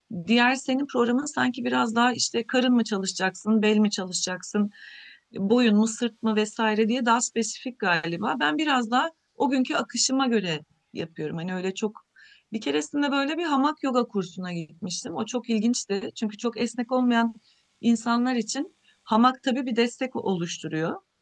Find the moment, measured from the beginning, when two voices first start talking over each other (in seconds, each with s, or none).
none